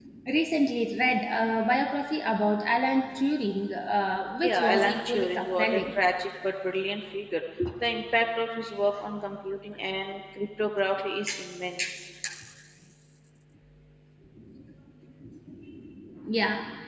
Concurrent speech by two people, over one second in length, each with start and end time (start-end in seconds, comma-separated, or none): 4.4-5.9